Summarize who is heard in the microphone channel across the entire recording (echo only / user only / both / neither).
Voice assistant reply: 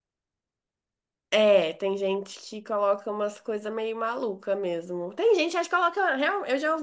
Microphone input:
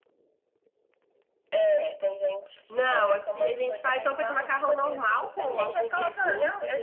both